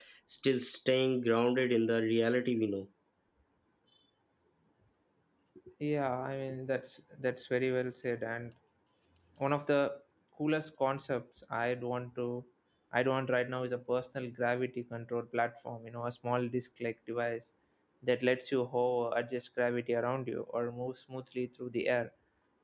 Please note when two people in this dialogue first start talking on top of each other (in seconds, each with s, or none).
none